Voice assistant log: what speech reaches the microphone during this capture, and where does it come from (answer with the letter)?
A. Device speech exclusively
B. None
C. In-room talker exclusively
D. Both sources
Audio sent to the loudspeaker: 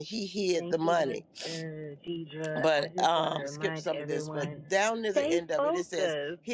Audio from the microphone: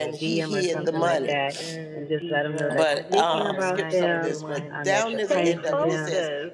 D